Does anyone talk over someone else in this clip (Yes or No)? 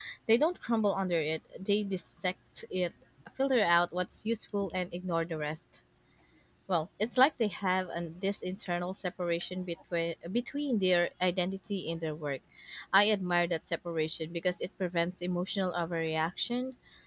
No